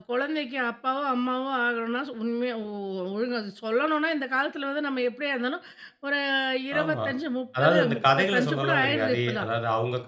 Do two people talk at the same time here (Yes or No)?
Yes